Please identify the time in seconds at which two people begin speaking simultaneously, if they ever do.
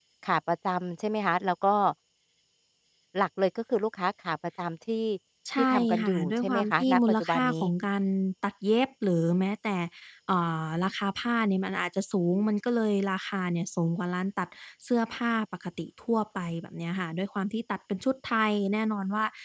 6 s

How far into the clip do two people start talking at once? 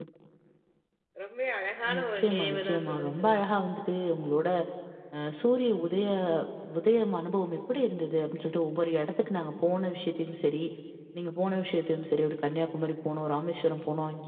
2 s

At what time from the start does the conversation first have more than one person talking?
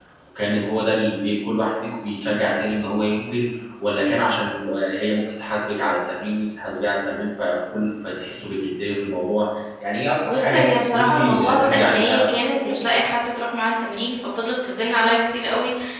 10 s

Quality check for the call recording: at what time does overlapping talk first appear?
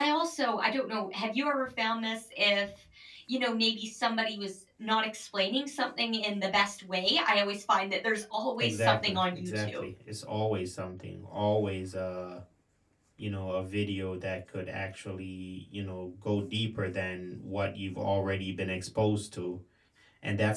9 s

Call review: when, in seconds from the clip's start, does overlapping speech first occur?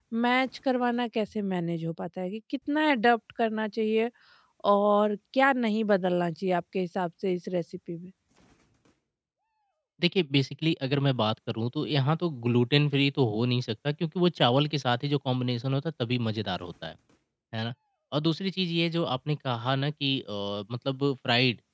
none

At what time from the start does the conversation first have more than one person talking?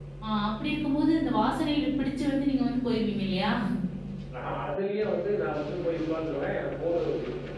none

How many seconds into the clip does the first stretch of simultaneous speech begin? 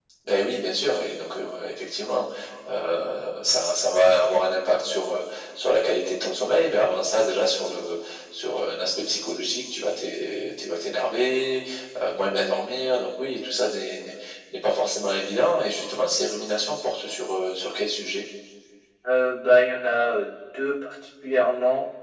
none

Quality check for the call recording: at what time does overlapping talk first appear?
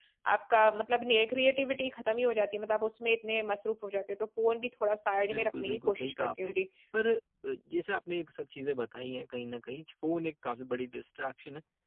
5 s

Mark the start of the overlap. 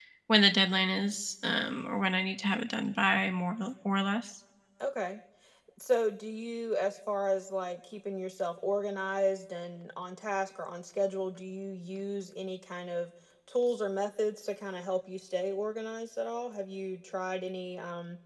none

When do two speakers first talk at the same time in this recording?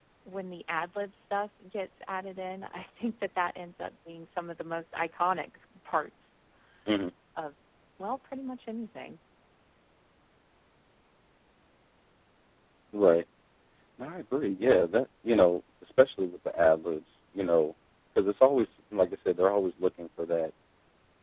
none

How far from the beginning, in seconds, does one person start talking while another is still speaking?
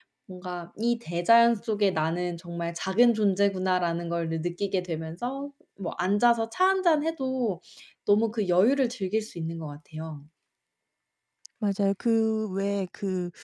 none

